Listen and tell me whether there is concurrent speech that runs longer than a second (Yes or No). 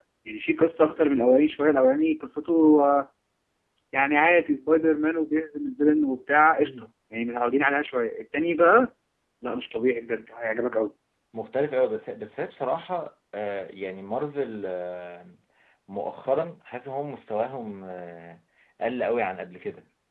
No